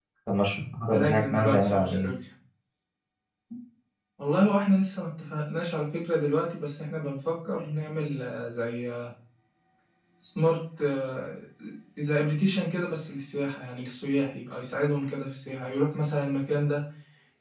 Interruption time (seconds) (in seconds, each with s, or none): 0.9 s